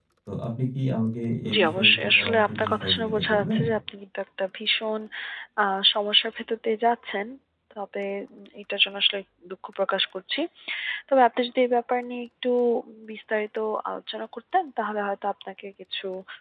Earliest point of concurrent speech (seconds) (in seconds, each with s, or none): 1.4 s